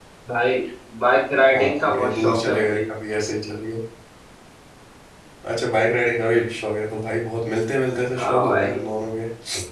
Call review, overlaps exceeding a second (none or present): present